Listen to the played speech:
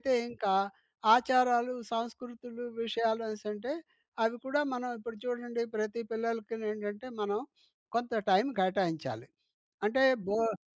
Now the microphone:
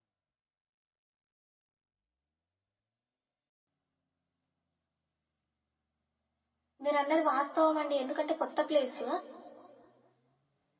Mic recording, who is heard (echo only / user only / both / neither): user only